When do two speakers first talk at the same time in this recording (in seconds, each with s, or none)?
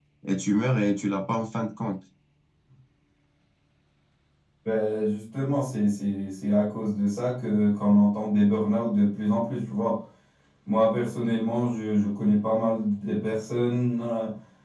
none